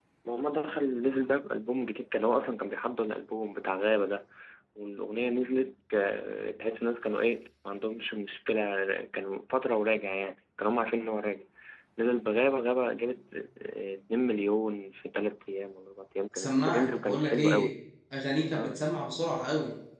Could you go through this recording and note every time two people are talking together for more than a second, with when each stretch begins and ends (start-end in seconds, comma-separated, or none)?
16.4-17.7